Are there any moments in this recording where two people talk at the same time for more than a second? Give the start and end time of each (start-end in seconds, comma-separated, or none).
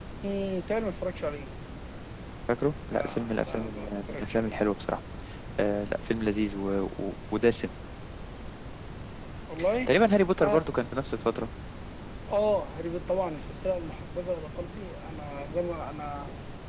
2.9-4.5